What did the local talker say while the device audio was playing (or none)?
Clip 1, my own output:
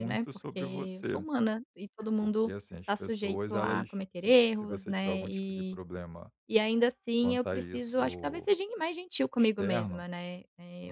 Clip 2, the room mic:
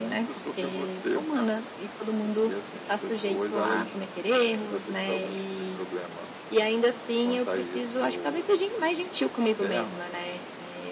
none